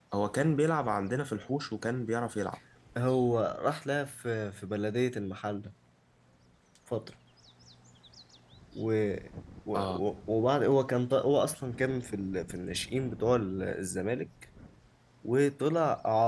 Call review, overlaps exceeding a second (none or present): none